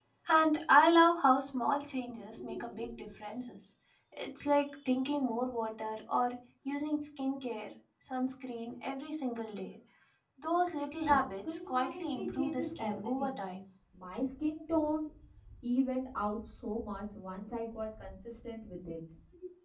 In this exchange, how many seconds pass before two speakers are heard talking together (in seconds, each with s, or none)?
11.0 s